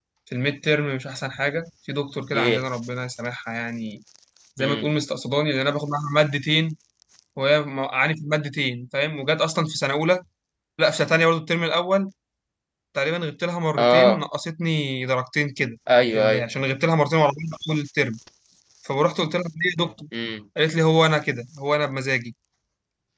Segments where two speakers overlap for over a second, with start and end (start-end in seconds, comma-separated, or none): none